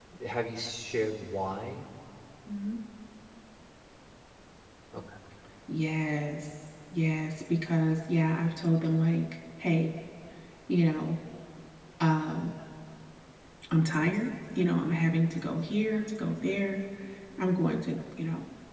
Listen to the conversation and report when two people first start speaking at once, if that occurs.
none

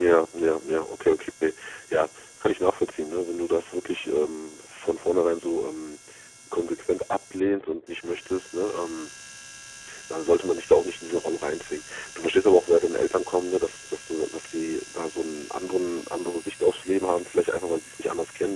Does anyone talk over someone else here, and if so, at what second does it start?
none

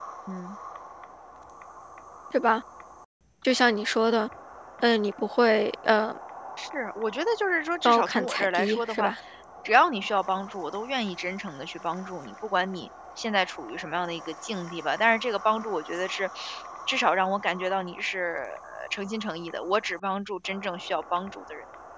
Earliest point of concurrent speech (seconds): 7.8 s

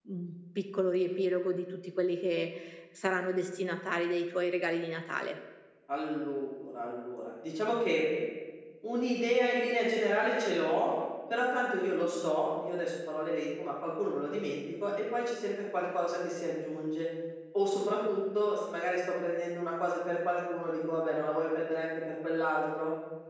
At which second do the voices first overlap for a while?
none

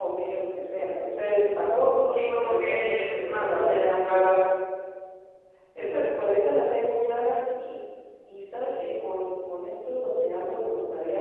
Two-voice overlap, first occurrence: 2.1 s

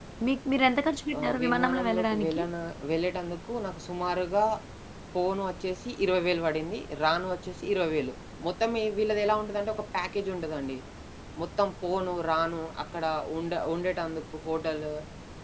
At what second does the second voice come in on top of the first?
1.2 s

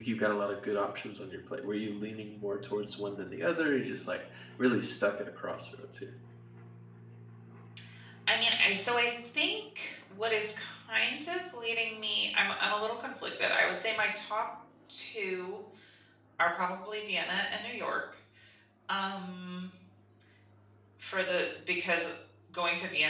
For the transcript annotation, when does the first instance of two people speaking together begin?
none

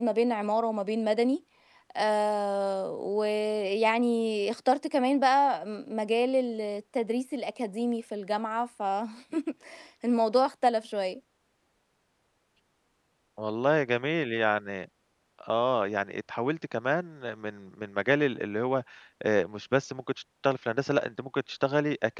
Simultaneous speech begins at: none

